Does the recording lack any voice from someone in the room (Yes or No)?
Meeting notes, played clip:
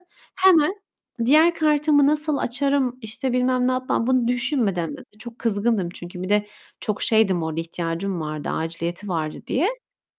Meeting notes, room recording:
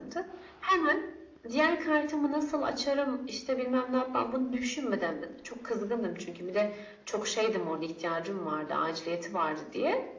Yes